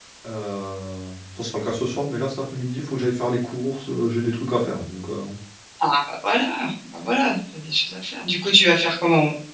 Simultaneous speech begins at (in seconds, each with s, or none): none